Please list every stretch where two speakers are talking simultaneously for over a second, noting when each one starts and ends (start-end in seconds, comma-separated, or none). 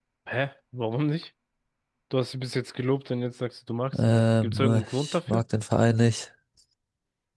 4.0-5.4